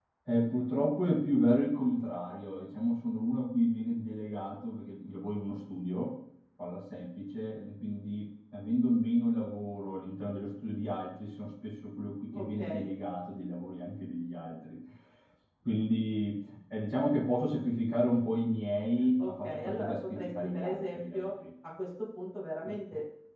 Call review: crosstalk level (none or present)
present